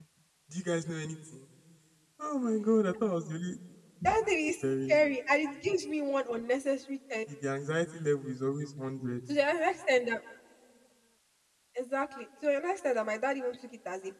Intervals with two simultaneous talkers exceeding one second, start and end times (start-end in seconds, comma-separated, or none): none